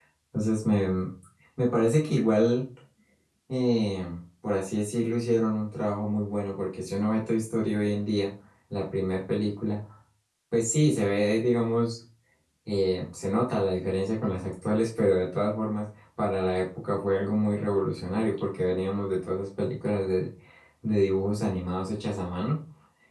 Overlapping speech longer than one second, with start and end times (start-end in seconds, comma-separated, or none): none